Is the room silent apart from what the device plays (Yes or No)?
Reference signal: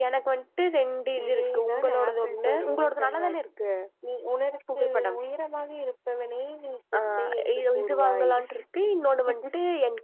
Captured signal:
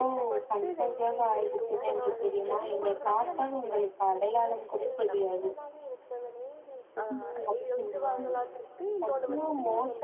No